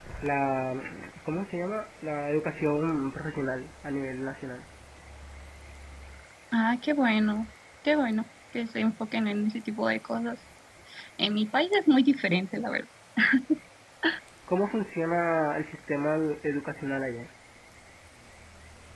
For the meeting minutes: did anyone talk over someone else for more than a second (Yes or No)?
No